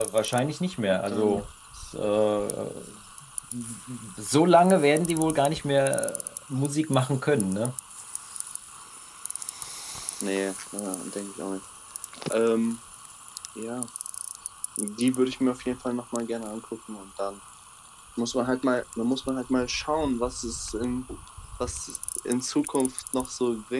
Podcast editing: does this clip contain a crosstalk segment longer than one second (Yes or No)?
No